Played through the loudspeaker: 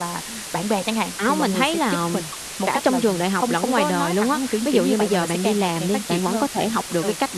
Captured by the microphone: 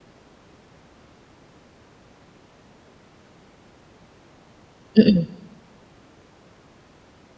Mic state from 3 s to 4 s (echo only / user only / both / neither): neither